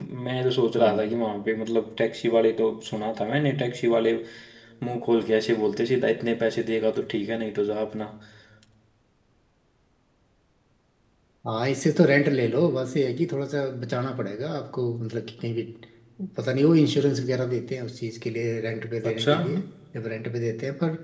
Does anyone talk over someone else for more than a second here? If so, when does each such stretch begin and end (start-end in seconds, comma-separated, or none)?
none